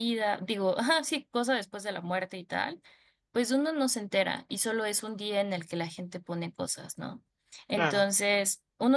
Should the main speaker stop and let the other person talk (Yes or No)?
No